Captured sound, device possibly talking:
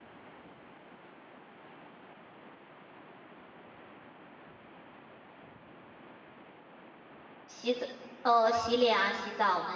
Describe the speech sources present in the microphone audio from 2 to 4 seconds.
neither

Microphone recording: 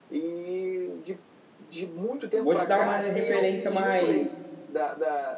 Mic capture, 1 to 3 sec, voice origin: both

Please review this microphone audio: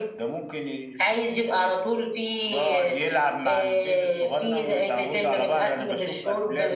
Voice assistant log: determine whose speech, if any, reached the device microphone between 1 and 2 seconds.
echo only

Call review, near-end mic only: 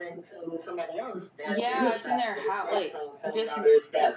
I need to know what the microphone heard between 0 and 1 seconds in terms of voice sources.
echo only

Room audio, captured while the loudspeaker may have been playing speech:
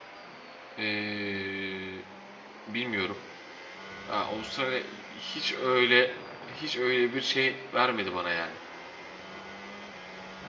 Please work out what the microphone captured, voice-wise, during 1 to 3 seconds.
user only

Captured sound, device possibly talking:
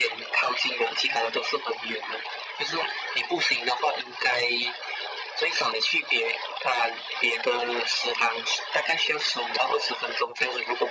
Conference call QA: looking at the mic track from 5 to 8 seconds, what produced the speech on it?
echo only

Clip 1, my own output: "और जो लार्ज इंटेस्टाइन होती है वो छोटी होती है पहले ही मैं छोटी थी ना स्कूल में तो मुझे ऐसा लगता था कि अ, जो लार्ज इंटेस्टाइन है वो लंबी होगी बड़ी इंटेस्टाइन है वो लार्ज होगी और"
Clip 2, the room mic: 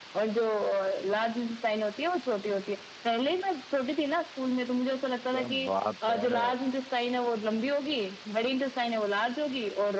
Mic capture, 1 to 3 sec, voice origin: echo only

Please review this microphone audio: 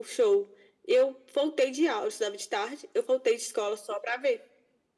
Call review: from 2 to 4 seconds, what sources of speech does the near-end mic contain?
echo only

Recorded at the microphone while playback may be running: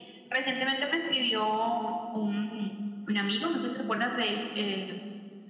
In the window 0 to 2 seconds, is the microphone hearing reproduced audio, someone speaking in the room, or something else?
echo only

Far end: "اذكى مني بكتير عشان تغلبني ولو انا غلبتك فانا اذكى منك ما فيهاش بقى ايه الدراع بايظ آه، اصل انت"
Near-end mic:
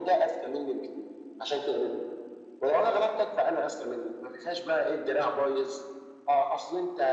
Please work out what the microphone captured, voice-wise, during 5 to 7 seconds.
echo only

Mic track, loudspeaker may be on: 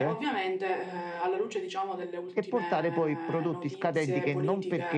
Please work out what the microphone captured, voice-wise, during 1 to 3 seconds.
echo only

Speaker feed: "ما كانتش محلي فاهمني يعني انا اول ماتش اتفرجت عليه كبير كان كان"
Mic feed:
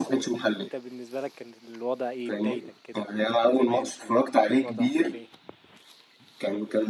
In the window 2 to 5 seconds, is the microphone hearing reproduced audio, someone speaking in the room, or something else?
both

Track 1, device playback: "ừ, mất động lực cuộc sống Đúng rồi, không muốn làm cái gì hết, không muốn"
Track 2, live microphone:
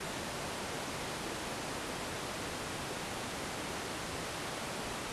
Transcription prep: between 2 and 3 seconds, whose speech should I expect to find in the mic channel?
neither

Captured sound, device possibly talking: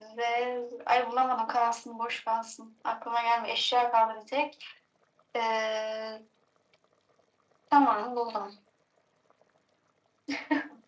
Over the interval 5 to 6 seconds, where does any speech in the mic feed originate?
echo only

